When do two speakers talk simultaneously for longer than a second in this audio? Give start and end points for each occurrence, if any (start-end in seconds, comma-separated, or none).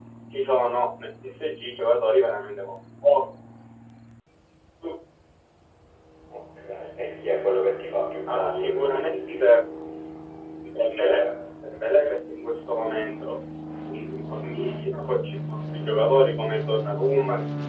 8.3-9.5